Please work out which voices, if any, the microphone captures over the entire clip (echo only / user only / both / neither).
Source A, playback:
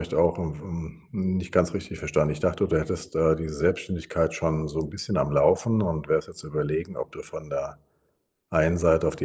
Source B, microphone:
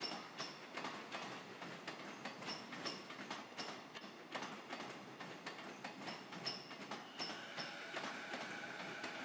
neither